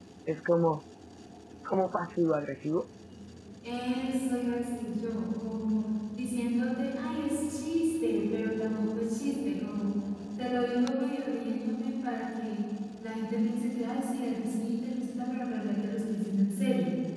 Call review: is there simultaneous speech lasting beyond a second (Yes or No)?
No